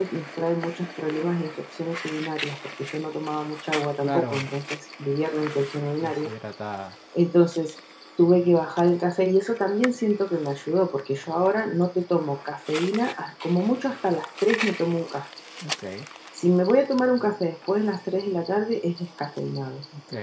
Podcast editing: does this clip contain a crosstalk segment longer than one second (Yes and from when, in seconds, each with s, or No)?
No